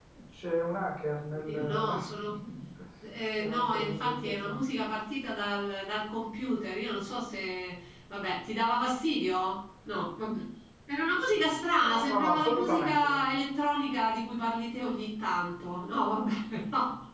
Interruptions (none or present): present